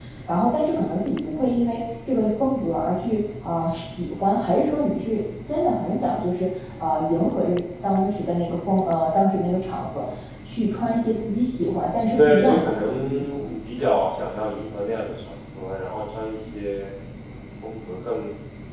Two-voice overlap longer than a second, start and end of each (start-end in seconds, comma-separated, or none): 12.2-13.5